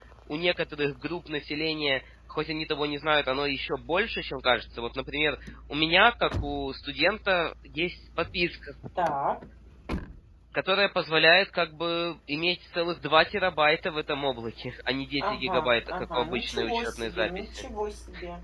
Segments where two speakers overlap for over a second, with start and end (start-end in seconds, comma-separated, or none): 15.2-17.6